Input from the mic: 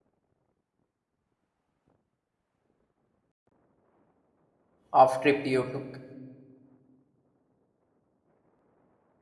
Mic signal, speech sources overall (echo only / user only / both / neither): user only